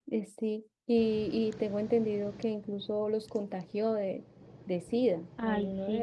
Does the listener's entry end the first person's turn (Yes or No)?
Yes